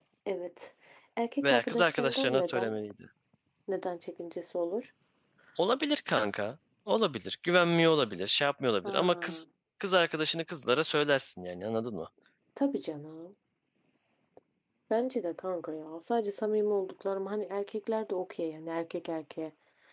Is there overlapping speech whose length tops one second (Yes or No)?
Yes